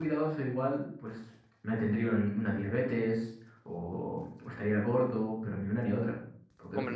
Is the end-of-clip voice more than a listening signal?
Yes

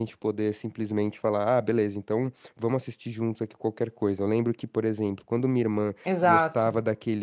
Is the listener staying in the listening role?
Yes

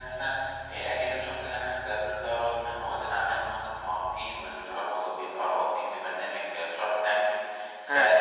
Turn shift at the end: No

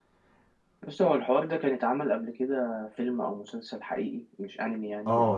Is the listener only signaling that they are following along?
No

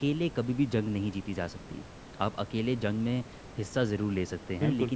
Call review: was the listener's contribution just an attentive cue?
Yes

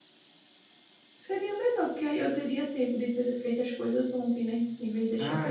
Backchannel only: No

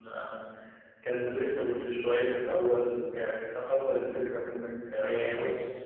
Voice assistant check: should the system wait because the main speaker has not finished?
No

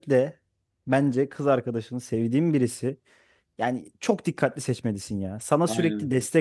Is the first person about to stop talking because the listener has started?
No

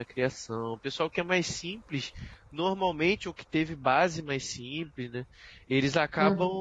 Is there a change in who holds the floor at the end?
No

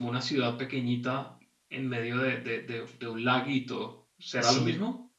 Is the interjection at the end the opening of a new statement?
Yes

